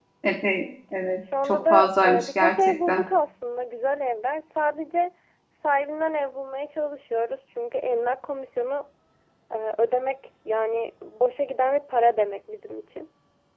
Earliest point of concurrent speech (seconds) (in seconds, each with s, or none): 1.5 s